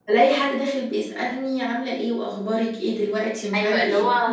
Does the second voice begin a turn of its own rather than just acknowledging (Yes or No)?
Yes